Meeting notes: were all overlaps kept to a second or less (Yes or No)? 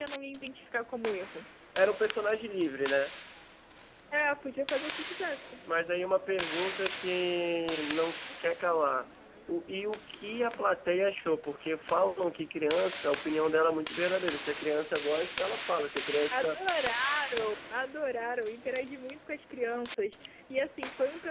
Yes